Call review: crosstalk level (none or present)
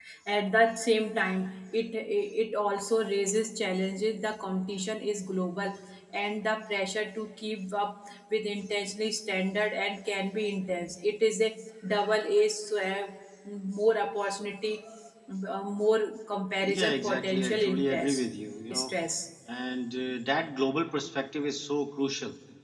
present